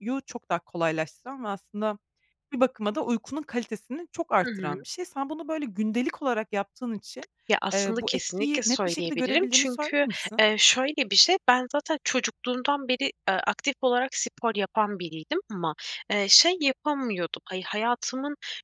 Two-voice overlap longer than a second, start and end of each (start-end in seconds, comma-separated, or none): 7.7-10.4